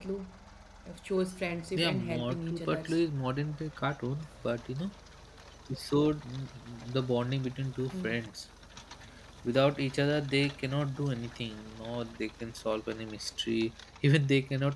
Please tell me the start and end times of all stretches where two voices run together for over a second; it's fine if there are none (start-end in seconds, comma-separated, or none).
1.8-3.0